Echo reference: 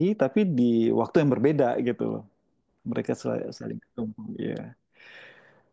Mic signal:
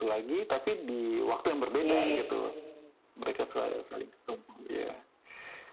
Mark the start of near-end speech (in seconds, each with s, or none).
1.8 s